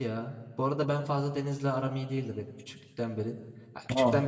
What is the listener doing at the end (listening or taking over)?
listening